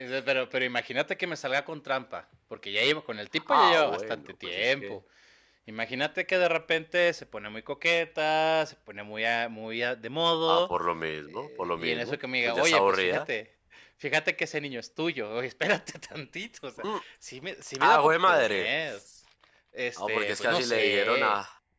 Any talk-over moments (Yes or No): Yes